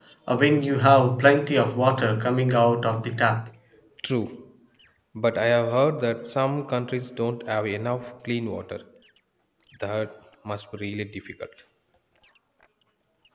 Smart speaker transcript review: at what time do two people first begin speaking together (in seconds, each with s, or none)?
none